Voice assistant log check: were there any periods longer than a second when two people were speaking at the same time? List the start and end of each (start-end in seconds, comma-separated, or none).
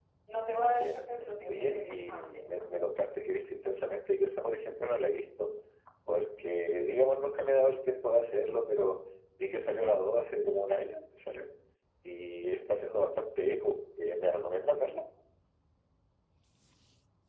1.5-2.7